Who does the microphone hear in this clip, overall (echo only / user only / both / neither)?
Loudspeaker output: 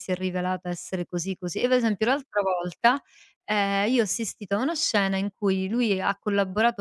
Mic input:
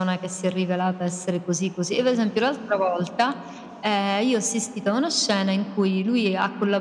echo only